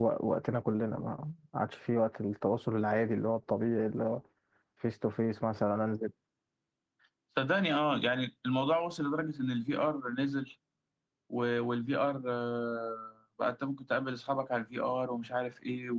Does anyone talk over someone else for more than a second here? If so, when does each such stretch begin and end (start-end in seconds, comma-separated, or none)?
none